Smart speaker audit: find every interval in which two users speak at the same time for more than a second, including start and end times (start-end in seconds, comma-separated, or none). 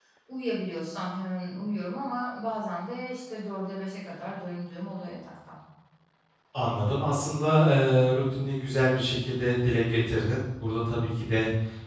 none